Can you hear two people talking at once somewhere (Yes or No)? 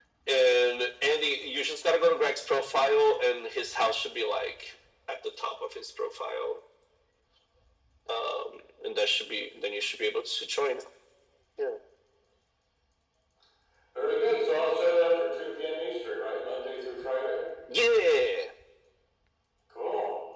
No